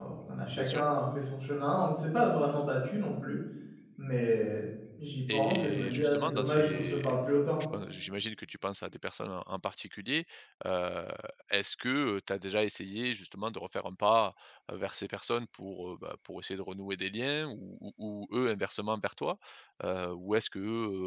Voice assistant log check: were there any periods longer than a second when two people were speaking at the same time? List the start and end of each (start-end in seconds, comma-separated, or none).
5.3-7.0